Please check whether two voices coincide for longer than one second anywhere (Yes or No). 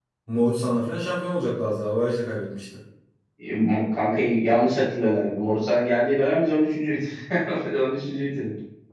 No